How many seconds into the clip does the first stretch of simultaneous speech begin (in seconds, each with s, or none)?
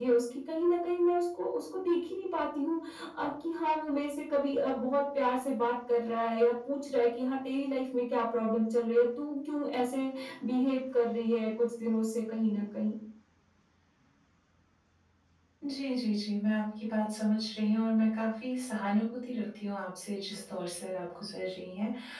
none